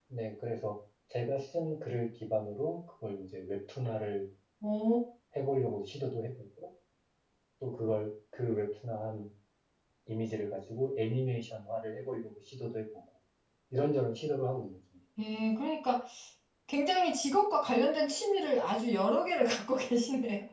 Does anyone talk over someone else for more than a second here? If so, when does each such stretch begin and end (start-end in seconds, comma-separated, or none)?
none